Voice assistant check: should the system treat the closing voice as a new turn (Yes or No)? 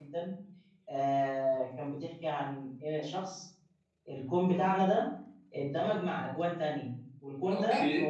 No